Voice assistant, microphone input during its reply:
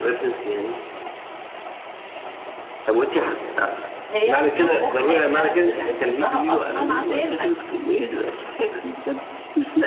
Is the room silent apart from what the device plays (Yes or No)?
No